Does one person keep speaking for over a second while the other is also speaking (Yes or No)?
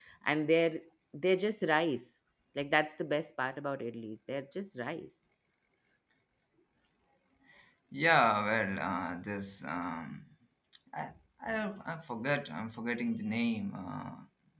No